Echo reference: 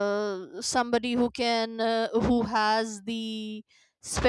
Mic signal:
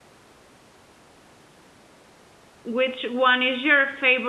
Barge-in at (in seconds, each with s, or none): 2.7 s